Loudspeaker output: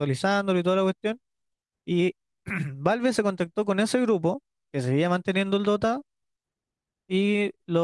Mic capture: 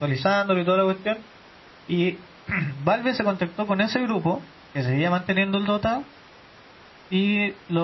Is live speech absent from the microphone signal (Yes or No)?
Yes